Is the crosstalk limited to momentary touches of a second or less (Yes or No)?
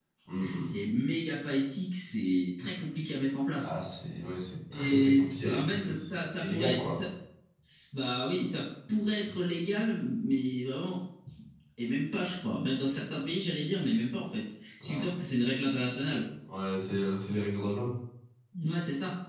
No